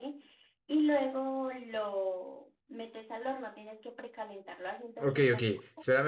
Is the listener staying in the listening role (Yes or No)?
No